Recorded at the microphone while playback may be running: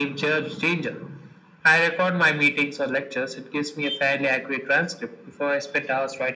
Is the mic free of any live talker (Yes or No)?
Yes